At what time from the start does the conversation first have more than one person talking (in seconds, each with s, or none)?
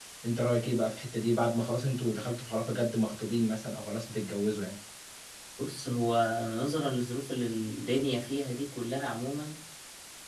none